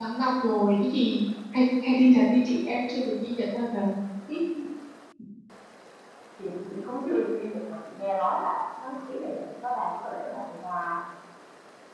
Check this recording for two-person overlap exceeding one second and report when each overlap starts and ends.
none

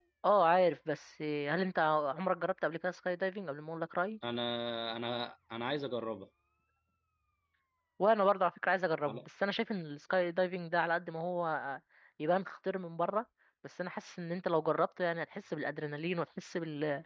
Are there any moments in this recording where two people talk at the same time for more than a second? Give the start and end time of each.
none

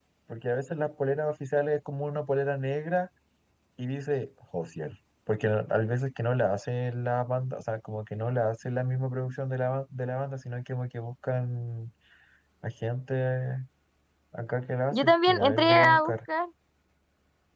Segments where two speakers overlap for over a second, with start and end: 14.9-16.1

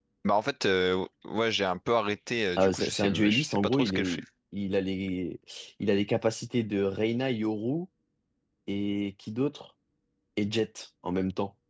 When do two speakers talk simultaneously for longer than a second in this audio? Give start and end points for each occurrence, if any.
2.6-4.2

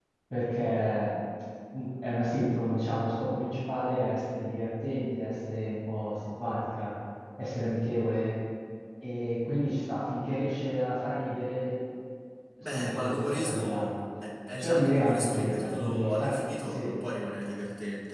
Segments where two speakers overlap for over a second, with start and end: 12.6-13.9, 14.6-16.9

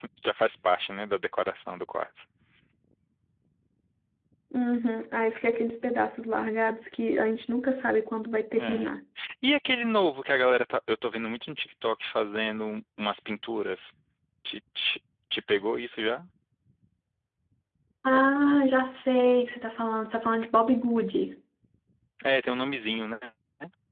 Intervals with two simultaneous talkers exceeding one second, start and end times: none

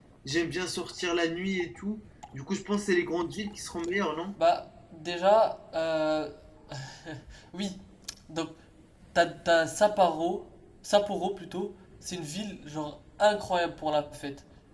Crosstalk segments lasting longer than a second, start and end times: none

